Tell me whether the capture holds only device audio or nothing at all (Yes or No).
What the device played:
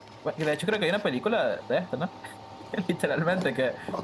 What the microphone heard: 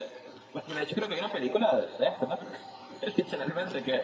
Yes